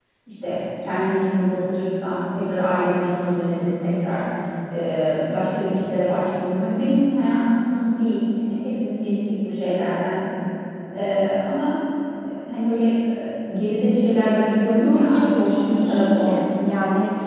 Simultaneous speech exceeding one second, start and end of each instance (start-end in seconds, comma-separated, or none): 14.8-16.3